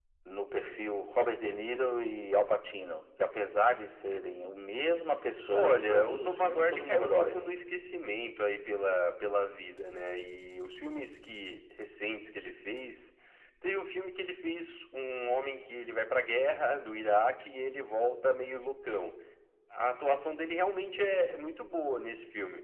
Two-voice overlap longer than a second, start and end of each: 5.5-7.4

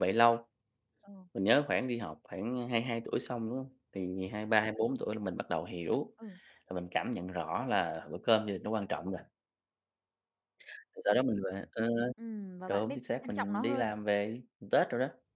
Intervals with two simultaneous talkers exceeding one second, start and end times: 12.7-13.9

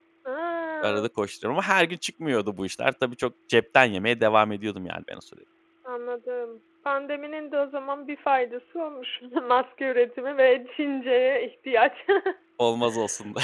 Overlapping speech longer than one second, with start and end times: none

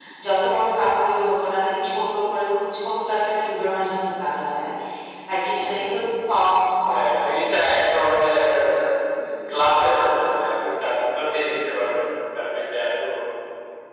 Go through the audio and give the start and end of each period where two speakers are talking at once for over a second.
none

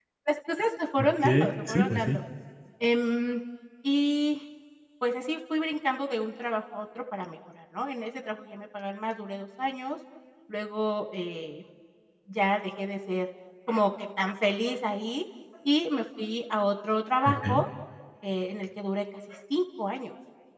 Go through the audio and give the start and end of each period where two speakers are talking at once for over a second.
1.0-2.2

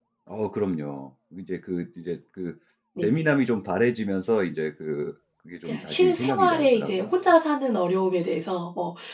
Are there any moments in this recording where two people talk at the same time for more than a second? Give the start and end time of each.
5.7-7.1

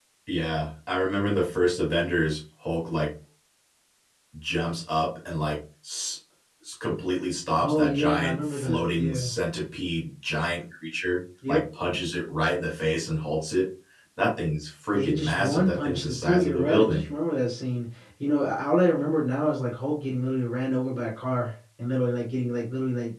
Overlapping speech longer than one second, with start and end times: 7.6-9.3, 14.9-17.1

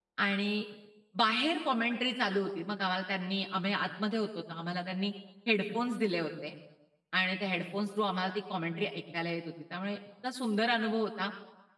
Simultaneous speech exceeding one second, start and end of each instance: none

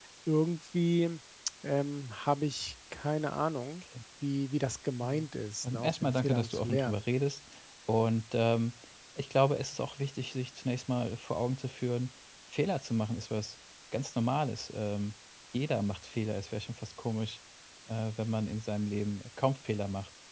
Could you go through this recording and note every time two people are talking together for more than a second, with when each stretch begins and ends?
5.6-7.0

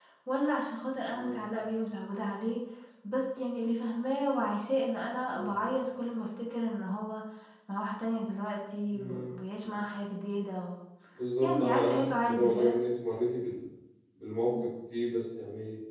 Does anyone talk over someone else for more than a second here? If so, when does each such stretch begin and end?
11.4-12.8

